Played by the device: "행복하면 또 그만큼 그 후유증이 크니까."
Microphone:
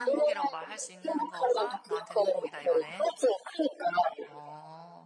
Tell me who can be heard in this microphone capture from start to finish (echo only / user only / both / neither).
both